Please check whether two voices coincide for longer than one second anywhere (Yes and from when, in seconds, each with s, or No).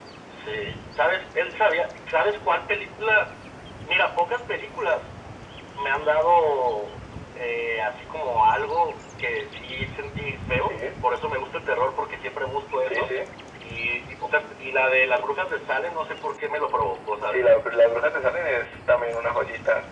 No